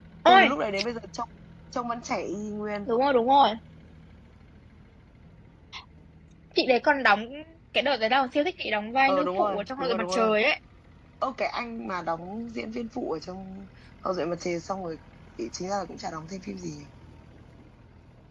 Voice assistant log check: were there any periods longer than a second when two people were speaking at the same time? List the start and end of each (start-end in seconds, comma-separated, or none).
9.1-10.3